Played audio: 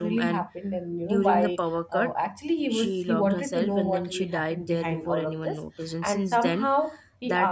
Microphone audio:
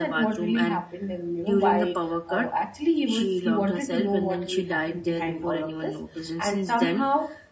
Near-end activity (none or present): none